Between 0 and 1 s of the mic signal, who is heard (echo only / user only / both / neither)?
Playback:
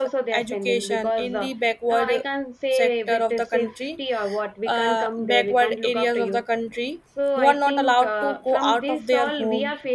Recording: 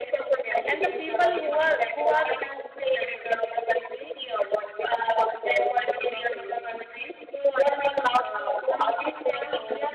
both